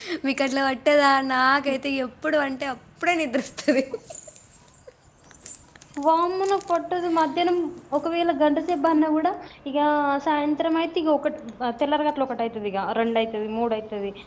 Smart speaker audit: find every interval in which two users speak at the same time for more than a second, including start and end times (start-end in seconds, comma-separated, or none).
none